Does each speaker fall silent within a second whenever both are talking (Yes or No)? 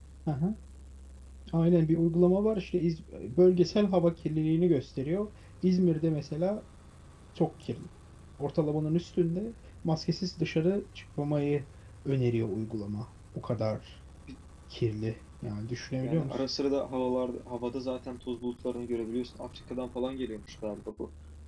Yes